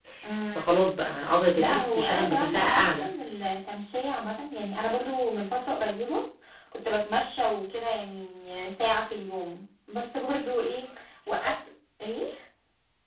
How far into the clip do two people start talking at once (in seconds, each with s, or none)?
1.5 s